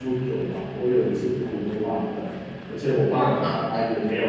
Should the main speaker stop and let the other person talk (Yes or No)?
No